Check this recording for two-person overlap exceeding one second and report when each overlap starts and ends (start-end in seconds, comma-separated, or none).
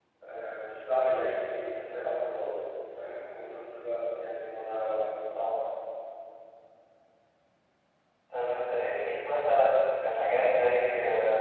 none